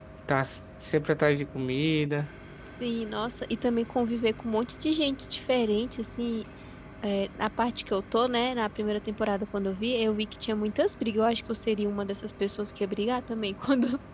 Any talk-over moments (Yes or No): No